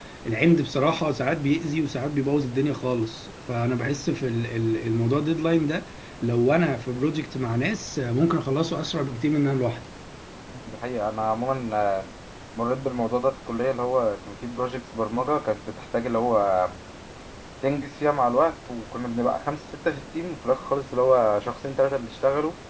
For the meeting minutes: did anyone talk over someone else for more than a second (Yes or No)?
No